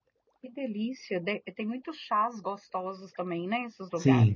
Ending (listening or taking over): taking over